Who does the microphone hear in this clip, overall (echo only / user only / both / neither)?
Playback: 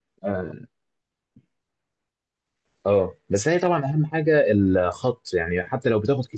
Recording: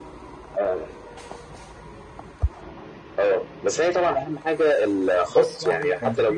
both